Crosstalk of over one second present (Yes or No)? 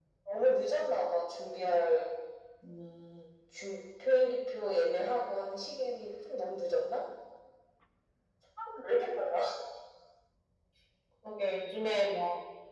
No